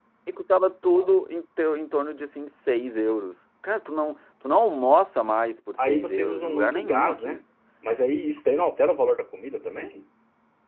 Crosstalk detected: Yes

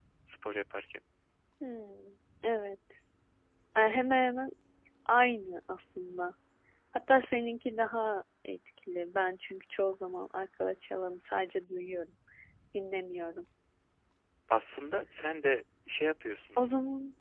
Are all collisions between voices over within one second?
Yes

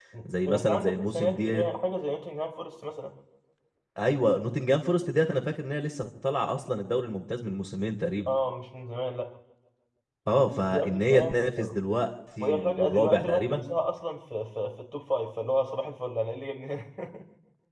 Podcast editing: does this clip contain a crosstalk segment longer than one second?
Yes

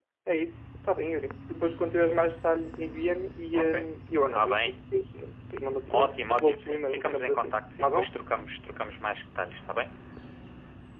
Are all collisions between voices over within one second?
No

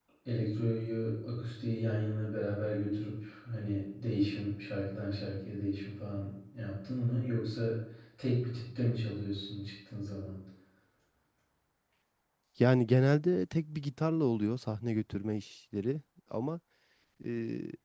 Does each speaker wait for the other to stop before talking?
Yes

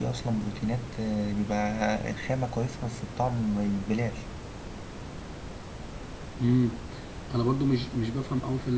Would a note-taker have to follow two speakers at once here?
No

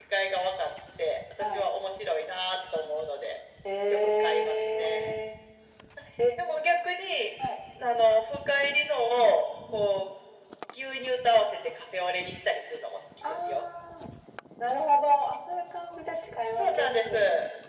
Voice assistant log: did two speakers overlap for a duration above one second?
Yes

